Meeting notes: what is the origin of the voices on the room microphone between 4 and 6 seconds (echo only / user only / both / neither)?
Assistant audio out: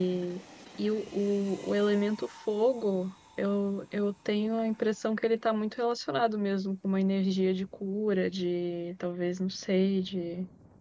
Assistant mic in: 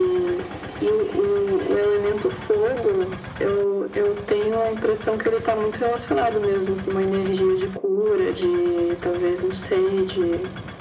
echo only